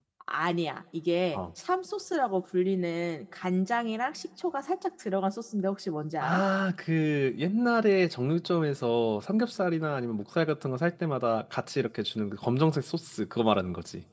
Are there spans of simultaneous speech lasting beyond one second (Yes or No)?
No